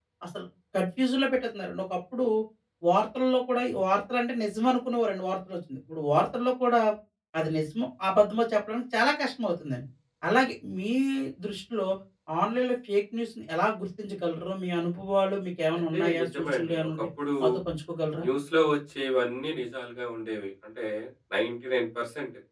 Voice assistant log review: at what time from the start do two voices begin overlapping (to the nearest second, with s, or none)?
16 s